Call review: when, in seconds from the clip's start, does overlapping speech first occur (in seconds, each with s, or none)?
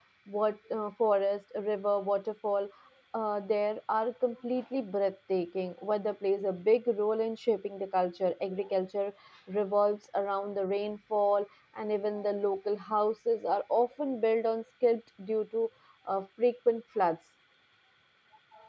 none